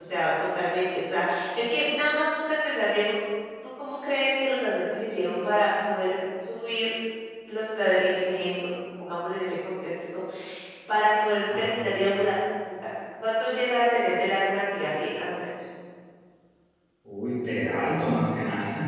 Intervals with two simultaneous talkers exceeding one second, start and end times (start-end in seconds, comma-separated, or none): none